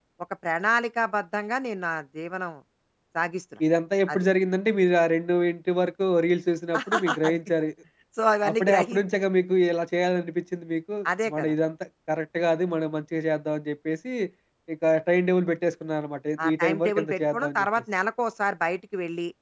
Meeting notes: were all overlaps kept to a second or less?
No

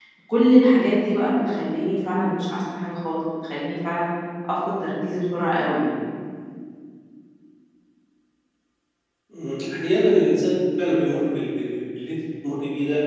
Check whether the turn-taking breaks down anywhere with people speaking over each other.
No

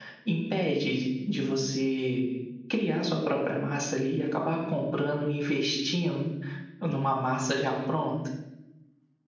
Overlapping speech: No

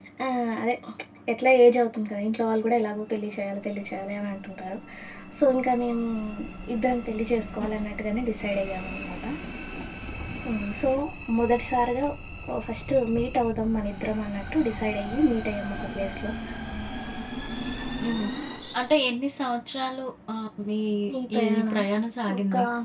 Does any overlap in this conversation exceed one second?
No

